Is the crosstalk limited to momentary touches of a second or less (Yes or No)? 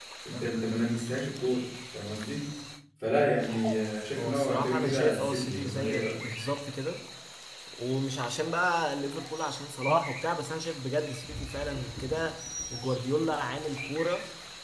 No